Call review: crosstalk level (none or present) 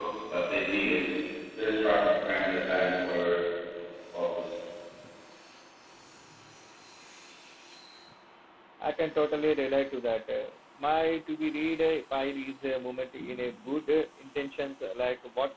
none